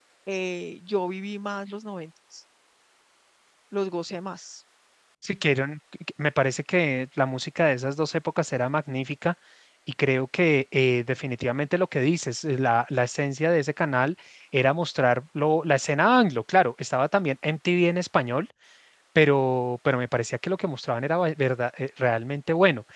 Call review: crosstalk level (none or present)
none